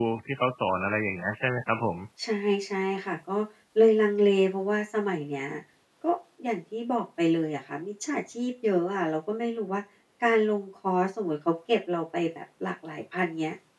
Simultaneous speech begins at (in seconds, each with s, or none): none